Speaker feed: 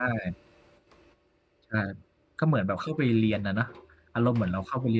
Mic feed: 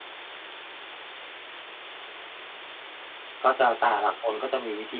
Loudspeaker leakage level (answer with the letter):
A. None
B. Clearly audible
A